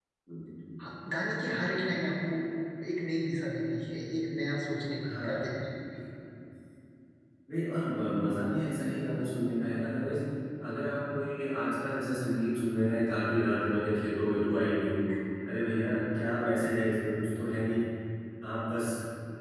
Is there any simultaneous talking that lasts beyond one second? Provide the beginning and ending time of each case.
none

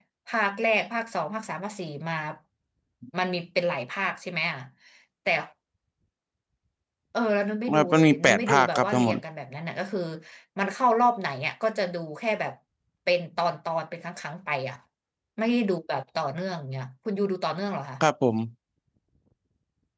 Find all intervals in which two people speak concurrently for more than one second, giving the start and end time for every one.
7.7-9.2

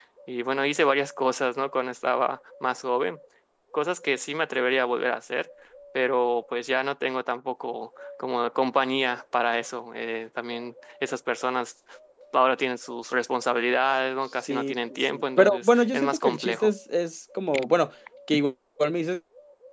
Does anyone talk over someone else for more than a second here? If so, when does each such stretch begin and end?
14.4-16.7

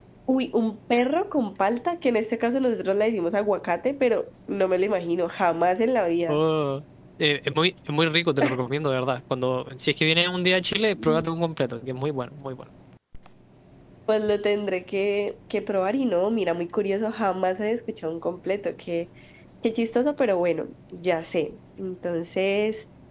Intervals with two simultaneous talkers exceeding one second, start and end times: none

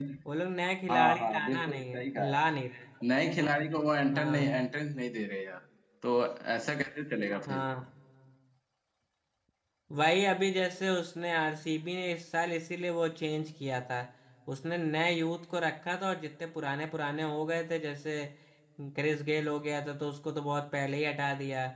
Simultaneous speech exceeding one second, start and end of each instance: 0.9-2.4

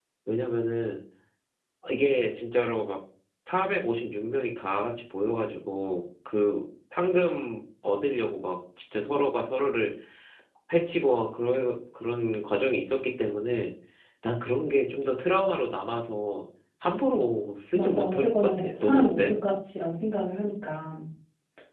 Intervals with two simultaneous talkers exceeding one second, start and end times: 17.7-19.3

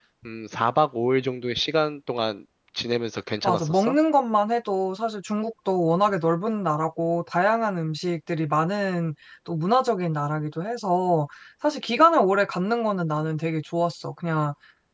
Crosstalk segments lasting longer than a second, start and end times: none

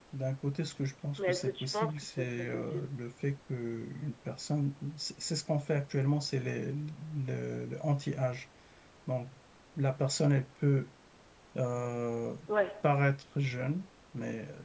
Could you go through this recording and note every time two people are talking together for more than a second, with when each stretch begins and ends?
1.2-2.9

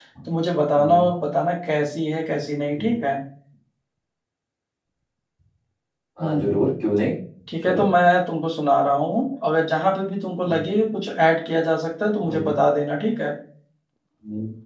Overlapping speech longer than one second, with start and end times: none

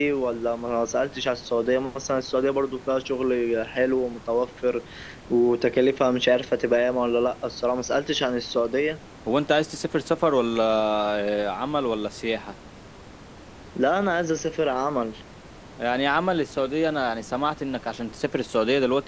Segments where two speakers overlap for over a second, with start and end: none

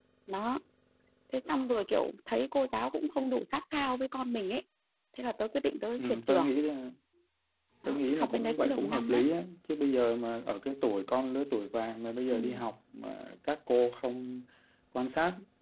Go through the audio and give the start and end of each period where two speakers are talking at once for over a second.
7.9-9.2

